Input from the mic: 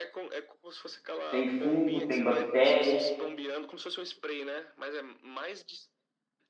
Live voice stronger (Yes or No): Yes